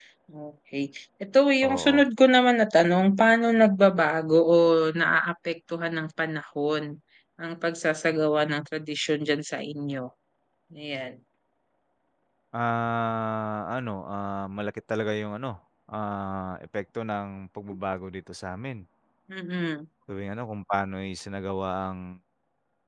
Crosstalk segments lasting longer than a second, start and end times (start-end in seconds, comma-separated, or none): none